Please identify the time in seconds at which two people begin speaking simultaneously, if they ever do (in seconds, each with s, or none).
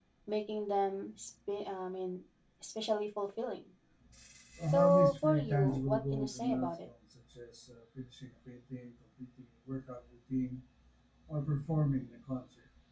4.7 s